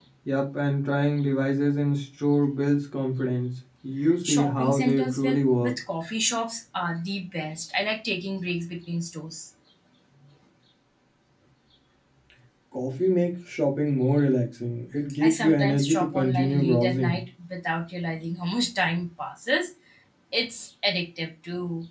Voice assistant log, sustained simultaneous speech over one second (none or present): present